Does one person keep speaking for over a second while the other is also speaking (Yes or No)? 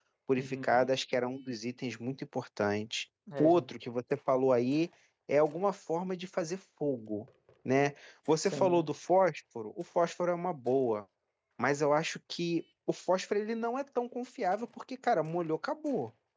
No